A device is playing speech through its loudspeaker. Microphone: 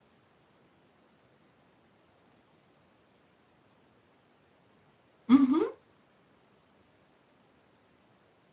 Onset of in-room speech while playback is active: 5 s

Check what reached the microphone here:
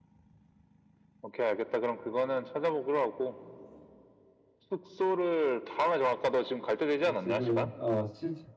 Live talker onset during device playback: 7 s

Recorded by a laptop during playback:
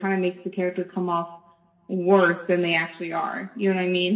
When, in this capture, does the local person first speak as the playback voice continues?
none

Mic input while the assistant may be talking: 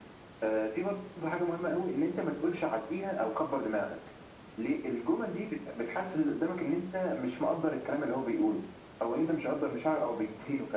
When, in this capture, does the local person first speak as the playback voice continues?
none

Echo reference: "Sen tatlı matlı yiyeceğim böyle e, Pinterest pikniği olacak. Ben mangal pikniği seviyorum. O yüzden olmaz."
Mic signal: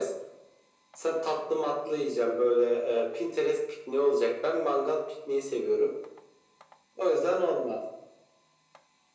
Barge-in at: none

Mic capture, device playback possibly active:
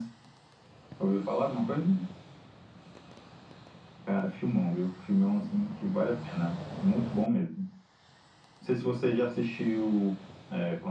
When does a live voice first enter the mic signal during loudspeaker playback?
none

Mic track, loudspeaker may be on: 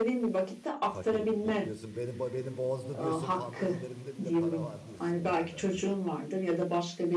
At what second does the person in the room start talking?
1 s

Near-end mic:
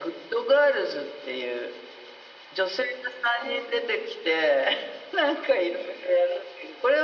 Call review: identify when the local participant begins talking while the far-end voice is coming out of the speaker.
none

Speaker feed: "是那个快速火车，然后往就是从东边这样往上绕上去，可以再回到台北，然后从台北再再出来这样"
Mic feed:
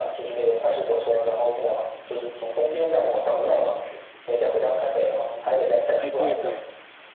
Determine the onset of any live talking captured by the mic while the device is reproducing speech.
6 s

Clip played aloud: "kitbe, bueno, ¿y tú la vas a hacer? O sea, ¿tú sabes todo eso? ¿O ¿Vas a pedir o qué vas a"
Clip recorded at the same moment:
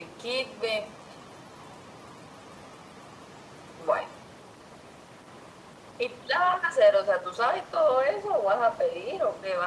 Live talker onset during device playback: none

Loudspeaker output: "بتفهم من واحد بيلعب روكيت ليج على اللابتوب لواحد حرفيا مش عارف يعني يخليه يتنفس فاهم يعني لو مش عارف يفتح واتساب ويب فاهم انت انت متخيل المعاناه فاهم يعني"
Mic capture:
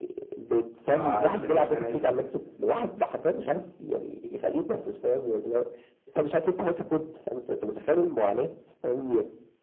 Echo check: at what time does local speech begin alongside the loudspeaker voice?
1 s

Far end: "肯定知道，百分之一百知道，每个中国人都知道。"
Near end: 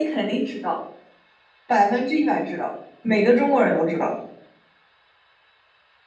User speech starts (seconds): none

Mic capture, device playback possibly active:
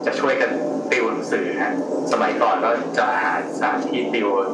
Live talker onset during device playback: none

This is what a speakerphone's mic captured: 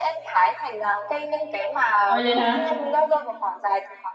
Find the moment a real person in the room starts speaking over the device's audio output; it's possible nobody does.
2 s

